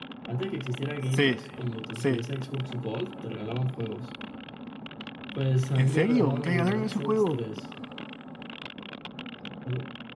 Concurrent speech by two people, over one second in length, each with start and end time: 5.8-7.4

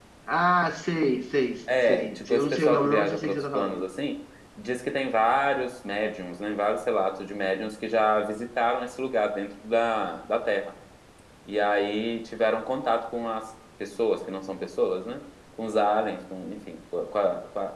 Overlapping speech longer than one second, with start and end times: 1.9-3.8

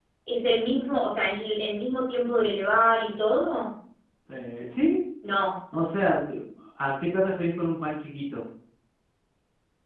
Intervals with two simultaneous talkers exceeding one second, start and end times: none

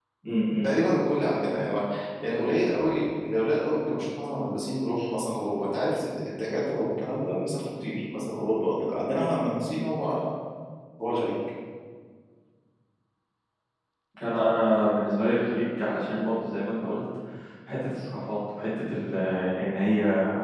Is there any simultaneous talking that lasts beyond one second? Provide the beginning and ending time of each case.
none

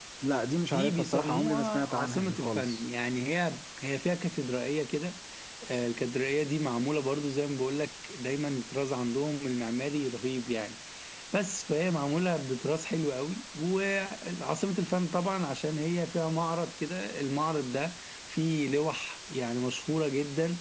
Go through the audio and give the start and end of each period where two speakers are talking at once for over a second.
0.7-2.8

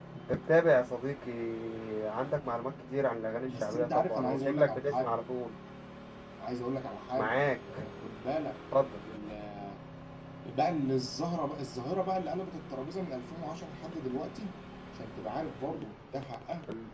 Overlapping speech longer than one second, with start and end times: 3.5-5.2

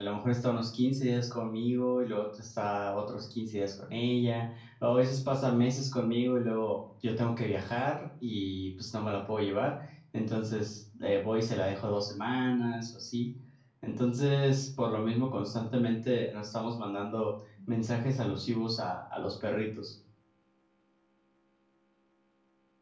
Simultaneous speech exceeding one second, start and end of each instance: none

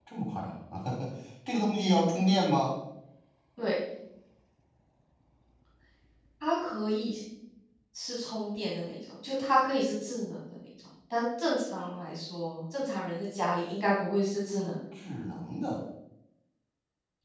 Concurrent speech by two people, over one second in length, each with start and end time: none

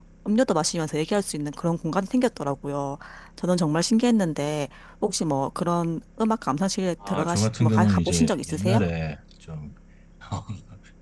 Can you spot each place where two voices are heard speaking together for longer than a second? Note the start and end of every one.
7.1-8.8

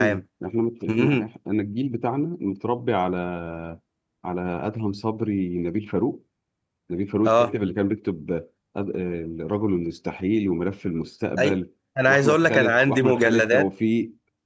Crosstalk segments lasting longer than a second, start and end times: 12.1-13.7

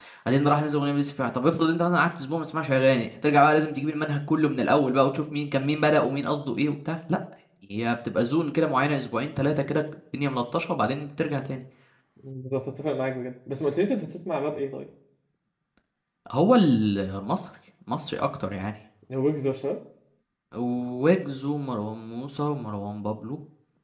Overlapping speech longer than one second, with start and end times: none

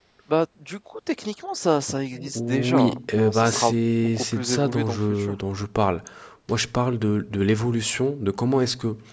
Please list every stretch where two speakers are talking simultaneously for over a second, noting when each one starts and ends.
2.4-5.4

